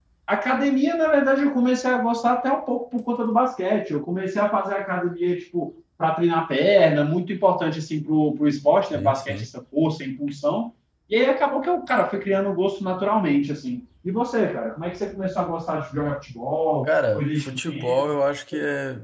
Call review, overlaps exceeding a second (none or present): present